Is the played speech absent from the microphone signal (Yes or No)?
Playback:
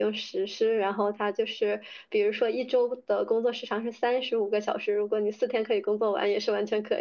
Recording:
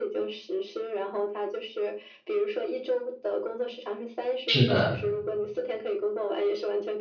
No